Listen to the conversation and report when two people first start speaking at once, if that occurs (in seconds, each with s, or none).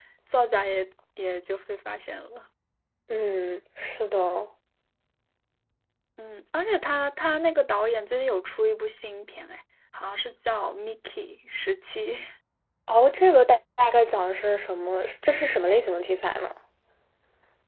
none